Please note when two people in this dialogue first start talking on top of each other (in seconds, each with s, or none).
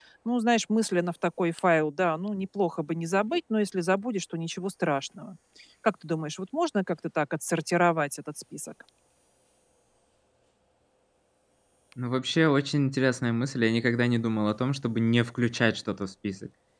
none